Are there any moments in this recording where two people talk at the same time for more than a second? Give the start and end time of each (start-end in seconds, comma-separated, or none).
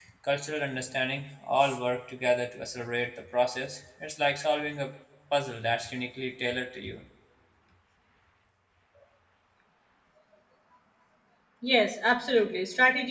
none